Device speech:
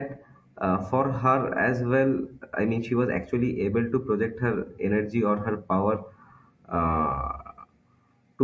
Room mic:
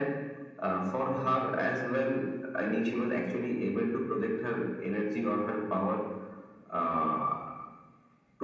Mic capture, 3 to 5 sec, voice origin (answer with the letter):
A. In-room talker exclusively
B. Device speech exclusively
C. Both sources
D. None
B